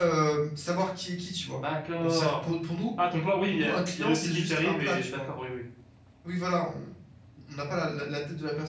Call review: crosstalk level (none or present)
present